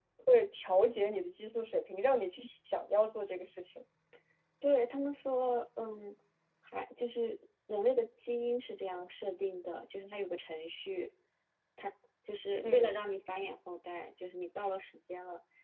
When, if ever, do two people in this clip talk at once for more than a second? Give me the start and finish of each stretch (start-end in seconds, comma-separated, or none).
none